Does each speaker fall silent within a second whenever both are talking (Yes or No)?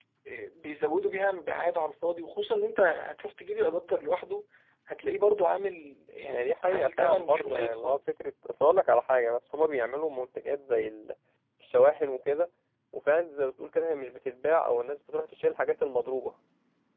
No